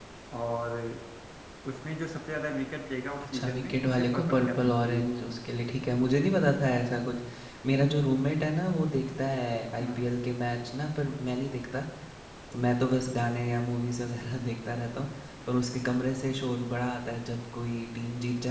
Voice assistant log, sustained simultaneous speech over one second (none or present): present